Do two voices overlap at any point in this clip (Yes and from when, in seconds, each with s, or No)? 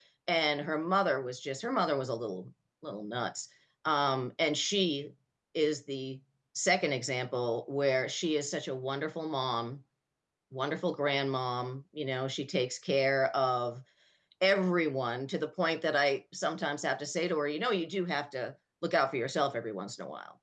No